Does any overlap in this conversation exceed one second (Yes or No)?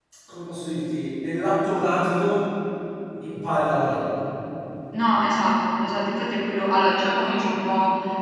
No